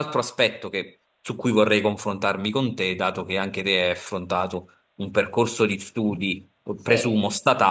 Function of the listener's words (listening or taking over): listening